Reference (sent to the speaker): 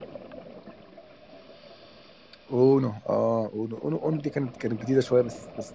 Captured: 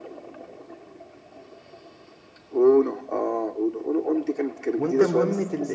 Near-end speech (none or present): present